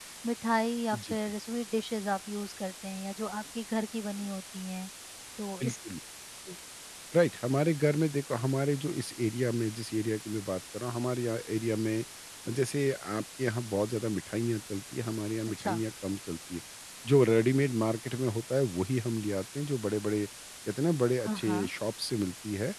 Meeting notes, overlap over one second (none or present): none